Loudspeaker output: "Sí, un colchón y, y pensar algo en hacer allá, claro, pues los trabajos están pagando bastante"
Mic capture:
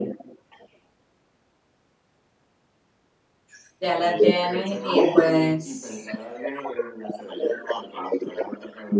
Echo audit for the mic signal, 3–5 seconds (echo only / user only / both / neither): both